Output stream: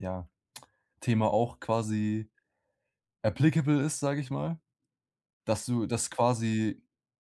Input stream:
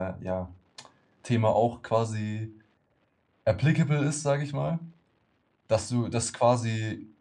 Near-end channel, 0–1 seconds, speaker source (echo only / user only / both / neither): echo only